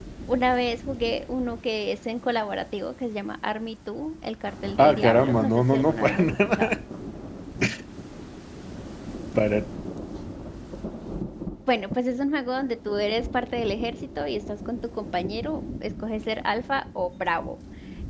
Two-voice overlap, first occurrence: 5 s

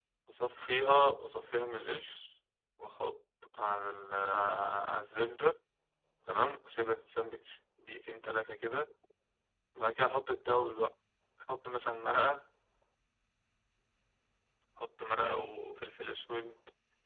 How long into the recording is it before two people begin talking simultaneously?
none

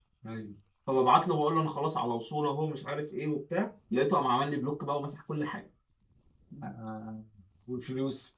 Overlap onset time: none

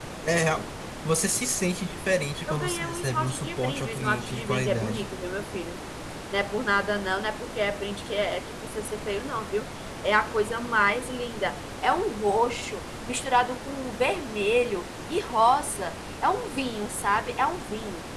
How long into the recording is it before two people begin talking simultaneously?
2 s

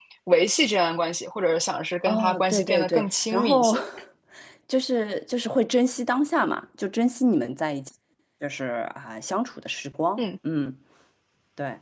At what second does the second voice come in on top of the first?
2 s

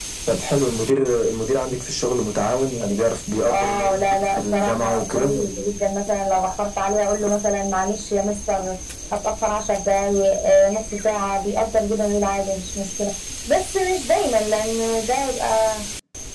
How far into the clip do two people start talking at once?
3 s

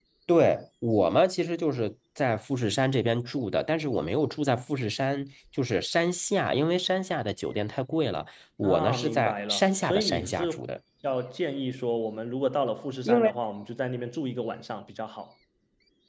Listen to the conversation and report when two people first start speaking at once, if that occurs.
9 s

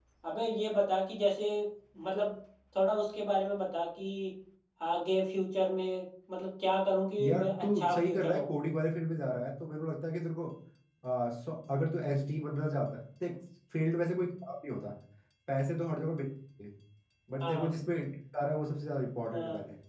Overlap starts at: 7 s

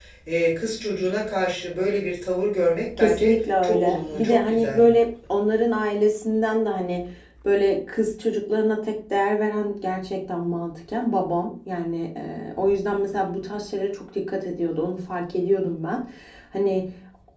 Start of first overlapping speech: 3 s

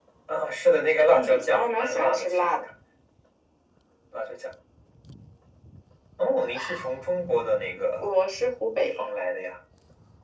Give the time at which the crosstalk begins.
1 s

